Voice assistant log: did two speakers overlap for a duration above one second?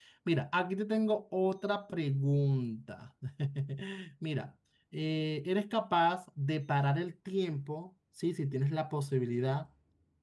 No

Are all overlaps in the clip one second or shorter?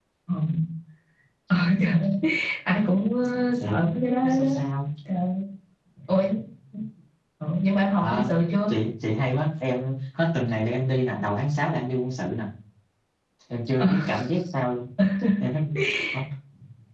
Yes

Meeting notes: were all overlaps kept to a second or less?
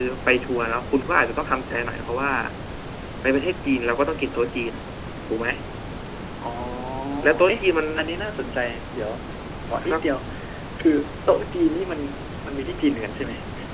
Yes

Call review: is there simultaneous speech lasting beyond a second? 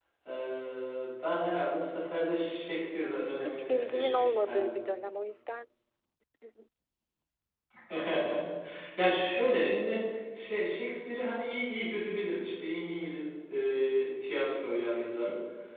Yes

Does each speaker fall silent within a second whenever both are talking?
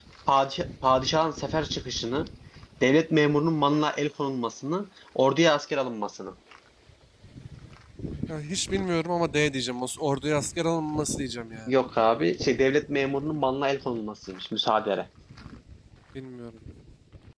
Yes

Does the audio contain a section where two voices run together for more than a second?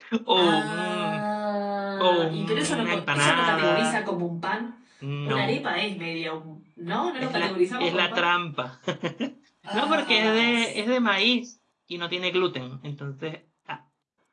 Yes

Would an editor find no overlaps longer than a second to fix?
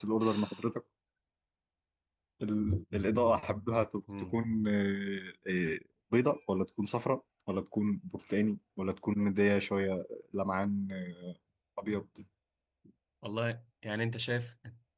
Yes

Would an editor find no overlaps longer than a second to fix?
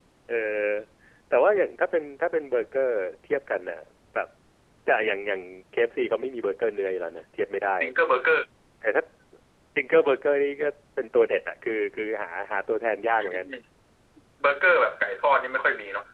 Yes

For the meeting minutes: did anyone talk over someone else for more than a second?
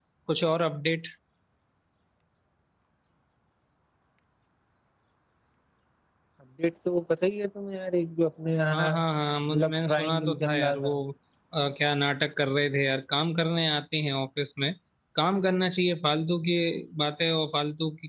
Yes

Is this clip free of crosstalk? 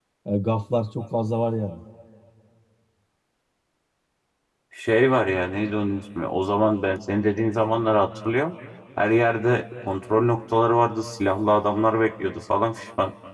Yes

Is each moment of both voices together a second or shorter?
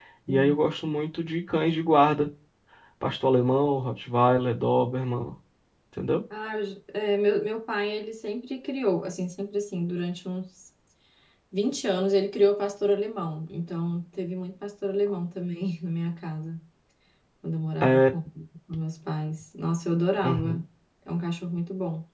Yes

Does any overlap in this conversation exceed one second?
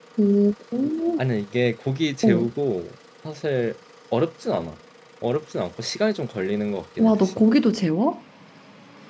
No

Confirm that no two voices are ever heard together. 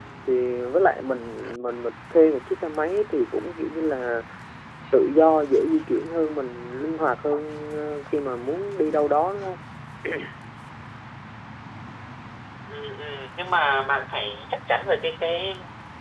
Yes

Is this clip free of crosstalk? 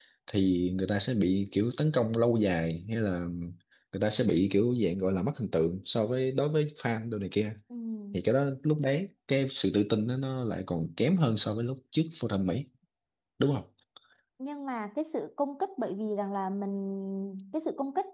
Yes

